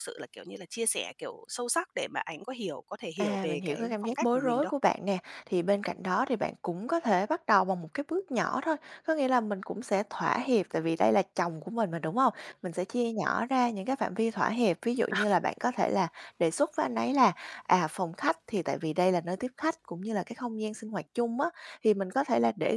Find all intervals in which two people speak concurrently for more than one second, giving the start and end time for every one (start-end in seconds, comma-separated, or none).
3.2-4.7